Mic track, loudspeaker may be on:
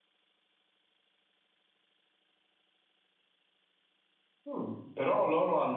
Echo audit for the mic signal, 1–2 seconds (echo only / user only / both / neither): neither